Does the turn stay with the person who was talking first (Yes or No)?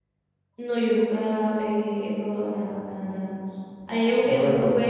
Yes